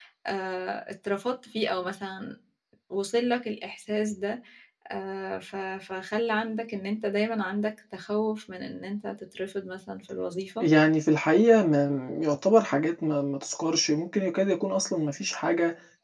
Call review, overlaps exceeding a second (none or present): none